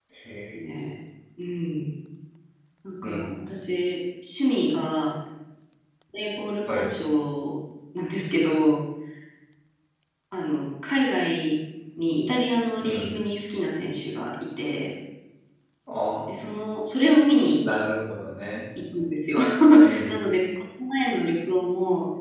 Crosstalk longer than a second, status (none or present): none